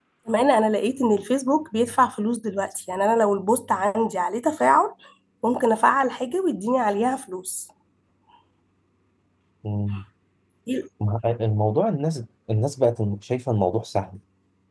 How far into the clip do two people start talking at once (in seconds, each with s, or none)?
none